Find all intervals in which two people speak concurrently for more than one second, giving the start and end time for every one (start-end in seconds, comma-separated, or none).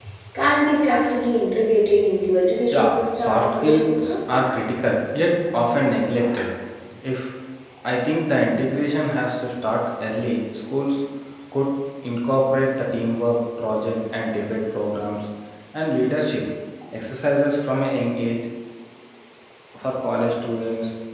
2.7-4.1